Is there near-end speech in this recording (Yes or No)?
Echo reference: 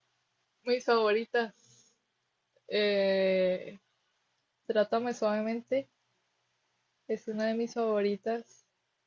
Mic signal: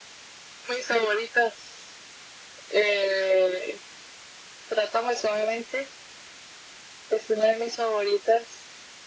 No